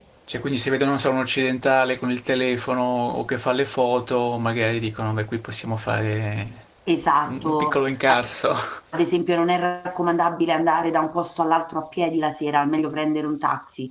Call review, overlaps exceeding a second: none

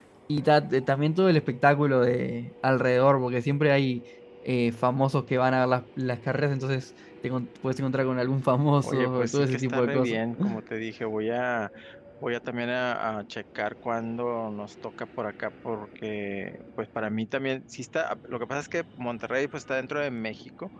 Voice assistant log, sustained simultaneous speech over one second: present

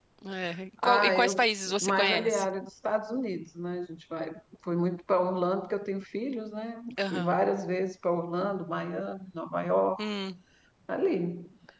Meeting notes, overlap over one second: present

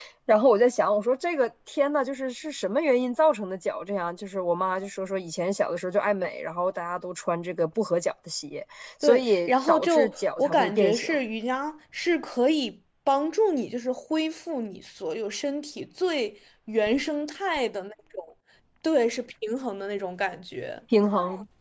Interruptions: present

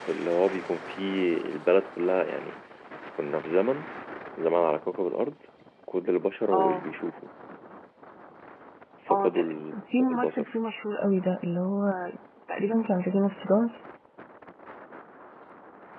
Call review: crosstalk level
present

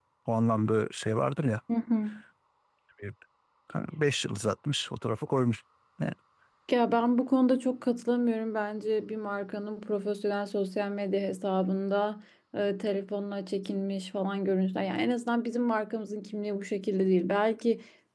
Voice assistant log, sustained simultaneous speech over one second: none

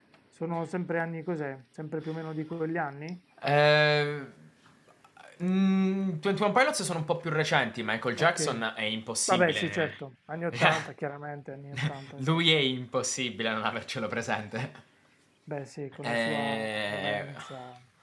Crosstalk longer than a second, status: present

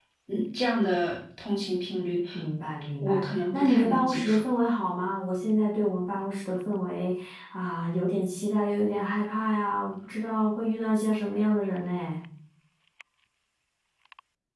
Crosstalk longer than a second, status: present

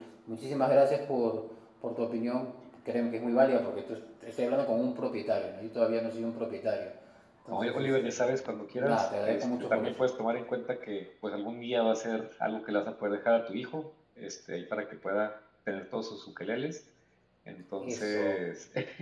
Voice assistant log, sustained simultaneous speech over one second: present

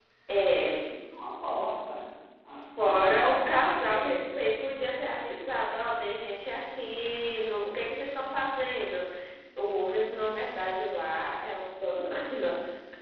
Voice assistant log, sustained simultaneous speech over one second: present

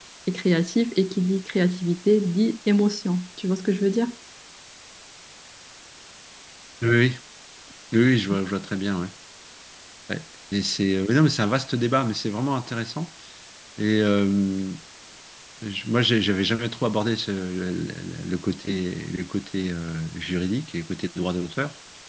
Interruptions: none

